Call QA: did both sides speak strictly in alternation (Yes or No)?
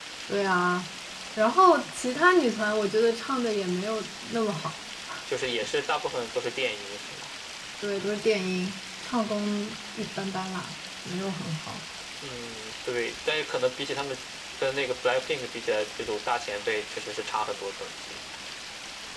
Yes